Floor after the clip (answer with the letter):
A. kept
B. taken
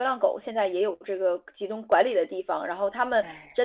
A